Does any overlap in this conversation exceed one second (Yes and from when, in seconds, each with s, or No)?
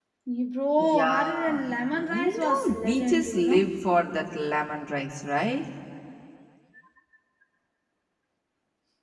Yes, from 0.8 s